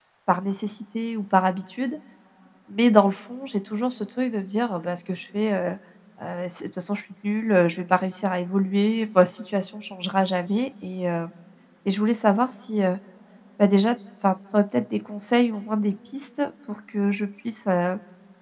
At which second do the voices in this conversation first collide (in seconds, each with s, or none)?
none